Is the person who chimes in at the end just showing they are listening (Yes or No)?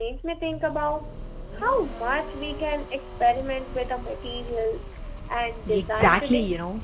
No